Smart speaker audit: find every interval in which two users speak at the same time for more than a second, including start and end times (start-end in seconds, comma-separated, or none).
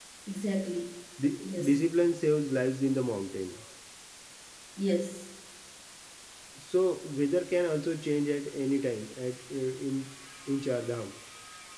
none